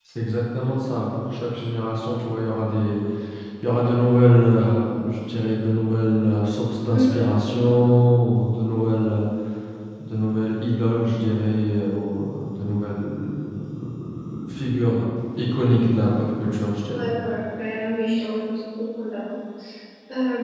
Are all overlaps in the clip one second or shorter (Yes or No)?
Yes